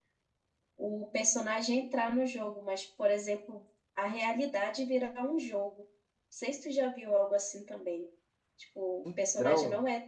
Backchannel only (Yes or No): Yes